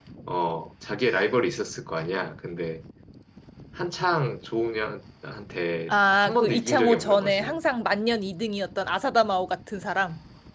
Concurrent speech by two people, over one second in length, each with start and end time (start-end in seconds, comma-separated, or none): 5.9-7.6